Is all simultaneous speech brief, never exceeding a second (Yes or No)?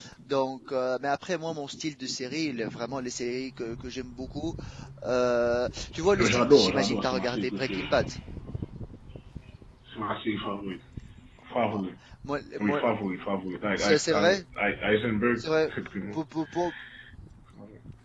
No